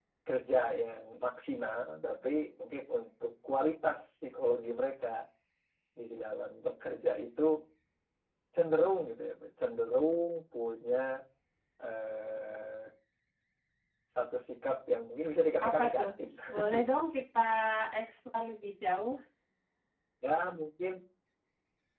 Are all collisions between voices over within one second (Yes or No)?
Yes